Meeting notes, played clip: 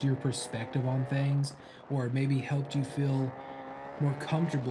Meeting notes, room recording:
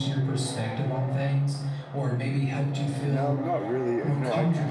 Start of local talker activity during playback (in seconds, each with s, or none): 3.0 s